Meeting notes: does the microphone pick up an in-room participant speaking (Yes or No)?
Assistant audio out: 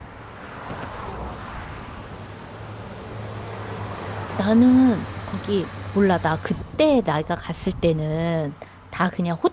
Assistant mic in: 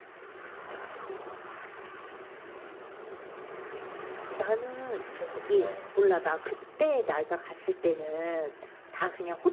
Yes